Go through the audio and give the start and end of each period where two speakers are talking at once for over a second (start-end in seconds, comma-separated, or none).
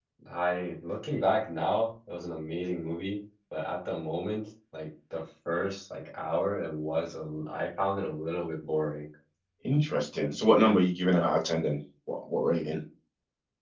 none